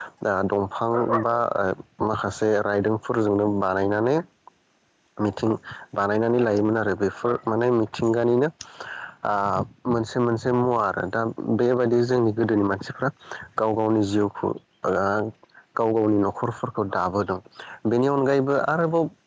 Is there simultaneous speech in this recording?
No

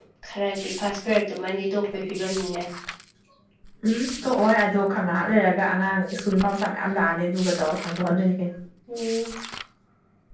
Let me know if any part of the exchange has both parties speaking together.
No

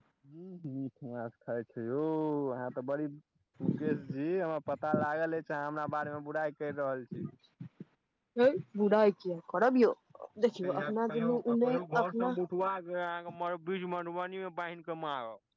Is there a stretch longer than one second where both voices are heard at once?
Yes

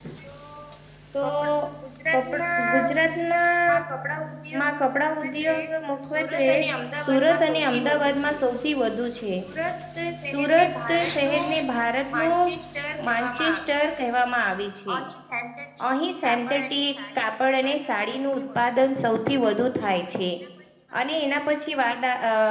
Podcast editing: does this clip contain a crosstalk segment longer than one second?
Yes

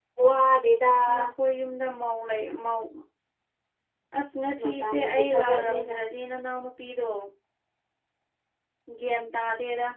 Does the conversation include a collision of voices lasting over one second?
Yes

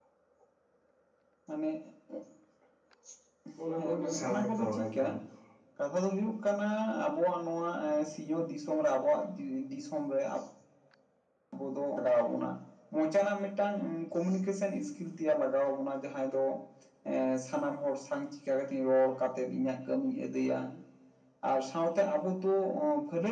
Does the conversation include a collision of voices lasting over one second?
Yes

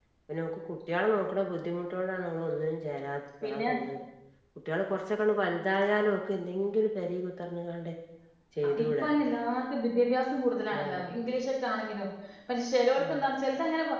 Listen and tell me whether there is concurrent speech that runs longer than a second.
No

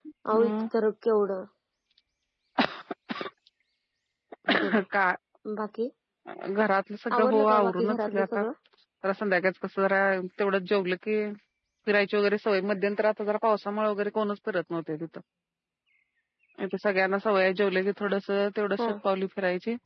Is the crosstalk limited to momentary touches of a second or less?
No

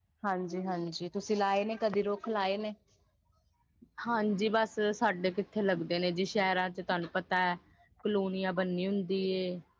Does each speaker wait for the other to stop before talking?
Yes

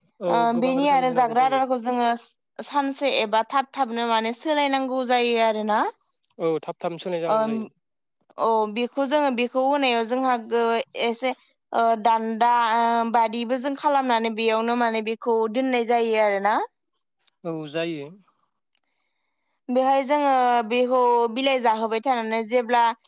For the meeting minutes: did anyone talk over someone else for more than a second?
Yes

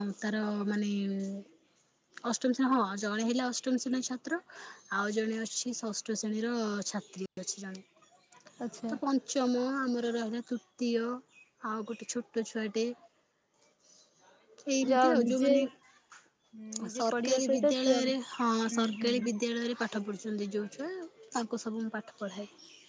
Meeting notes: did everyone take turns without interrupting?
No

